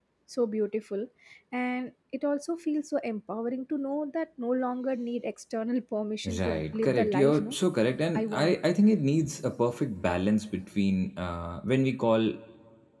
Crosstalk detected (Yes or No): Yes